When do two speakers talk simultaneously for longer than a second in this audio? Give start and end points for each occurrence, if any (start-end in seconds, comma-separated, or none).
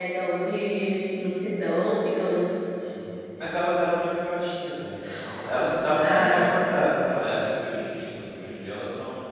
none